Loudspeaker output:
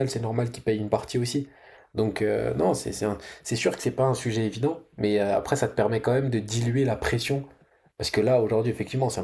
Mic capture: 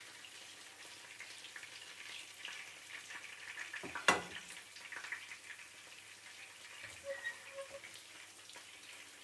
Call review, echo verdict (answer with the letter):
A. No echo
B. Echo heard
A